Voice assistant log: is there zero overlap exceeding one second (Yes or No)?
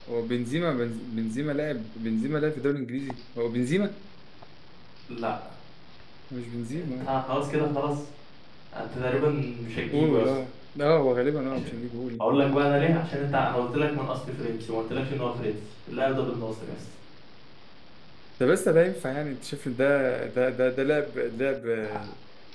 Yes